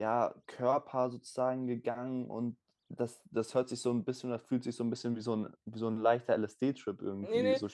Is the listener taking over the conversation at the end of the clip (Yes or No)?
Yes